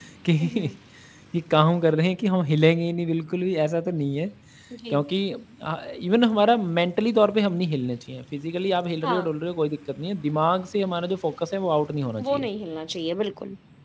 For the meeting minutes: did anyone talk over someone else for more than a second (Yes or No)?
No